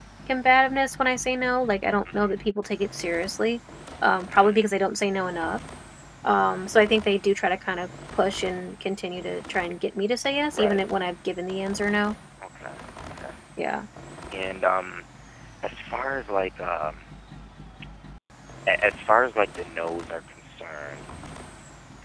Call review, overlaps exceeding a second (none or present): none